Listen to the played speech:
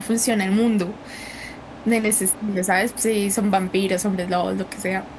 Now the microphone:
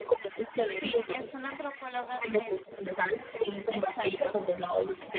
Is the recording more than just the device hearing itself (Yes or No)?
Yes